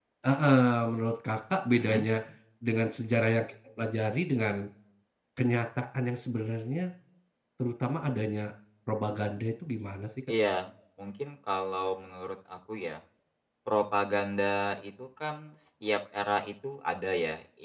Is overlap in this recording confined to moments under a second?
Yes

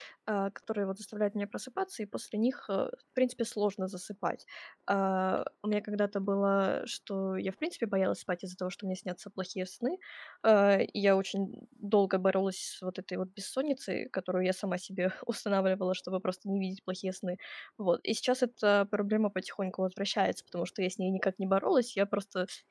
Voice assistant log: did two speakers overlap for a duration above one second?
No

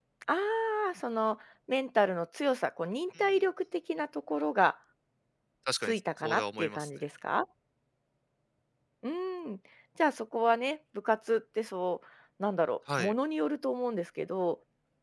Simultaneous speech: Yes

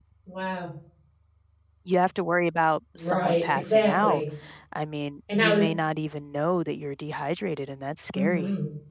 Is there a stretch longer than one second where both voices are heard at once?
Yes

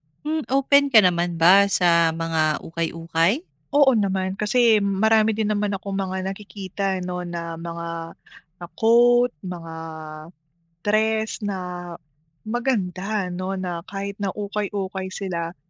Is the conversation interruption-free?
Yes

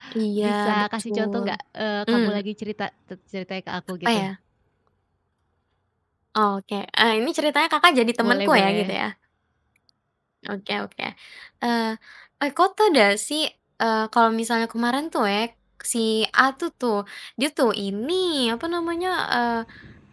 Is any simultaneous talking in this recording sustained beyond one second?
Yes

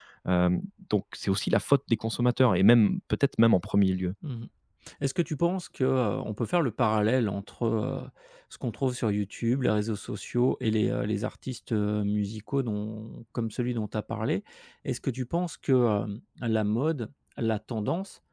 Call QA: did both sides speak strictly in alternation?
Yes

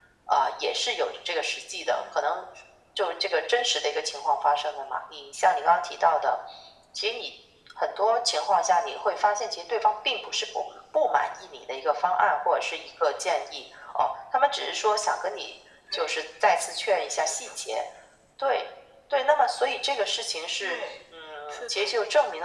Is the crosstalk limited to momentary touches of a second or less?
Yes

